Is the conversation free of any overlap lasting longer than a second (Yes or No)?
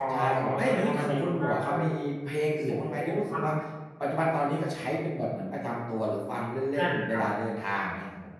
No